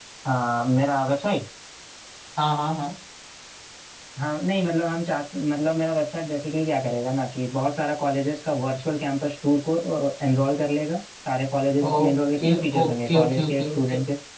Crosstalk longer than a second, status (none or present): present